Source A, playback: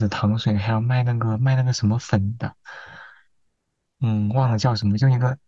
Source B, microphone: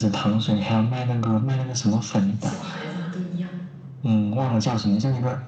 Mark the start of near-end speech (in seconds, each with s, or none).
2.4 s